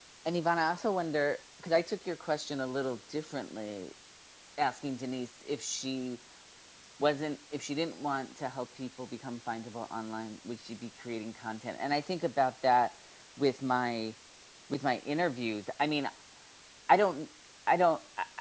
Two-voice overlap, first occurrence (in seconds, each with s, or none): none